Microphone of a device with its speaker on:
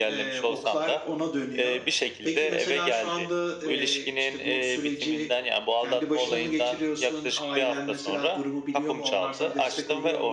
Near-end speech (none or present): present